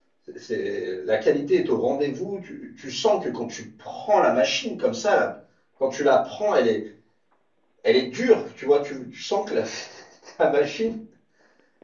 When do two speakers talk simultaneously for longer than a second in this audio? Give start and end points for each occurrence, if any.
none

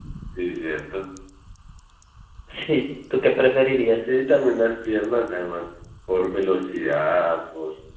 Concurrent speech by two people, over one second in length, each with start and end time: none

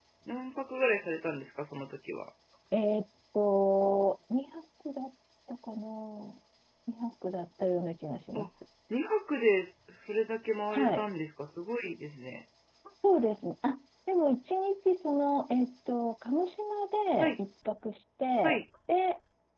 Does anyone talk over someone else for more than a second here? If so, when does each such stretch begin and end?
none

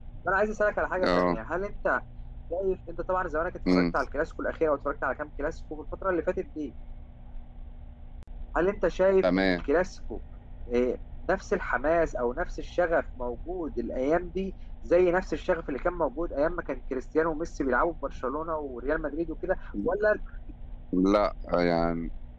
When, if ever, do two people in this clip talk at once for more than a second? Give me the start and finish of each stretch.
none

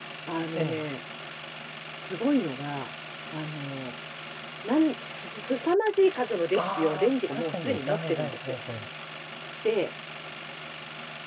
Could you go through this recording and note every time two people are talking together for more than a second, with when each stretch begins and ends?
6.6-8.6

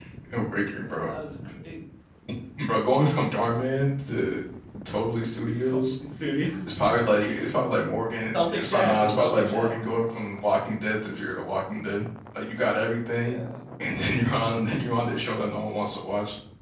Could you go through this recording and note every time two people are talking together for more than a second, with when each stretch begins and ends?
8.3-9.7

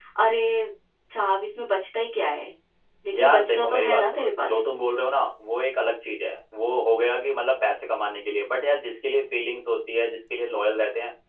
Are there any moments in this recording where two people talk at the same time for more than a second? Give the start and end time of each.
3.1-4.5

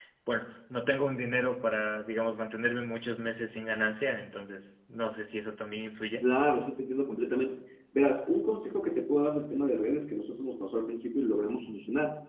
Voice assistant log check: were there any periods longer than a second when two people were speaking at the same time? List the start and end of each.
none

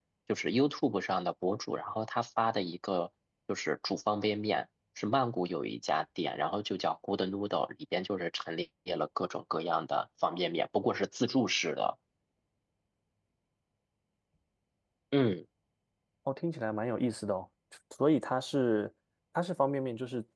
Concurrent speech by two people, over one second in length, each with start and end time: none

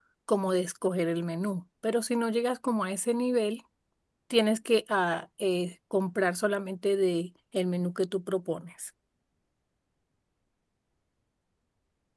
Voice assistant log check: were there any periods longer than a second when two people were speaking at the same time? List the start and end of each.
none

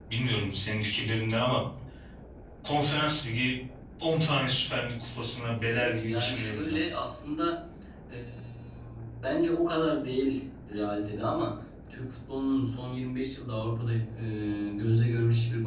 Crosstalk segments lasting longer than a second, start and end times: 5.6-6.8

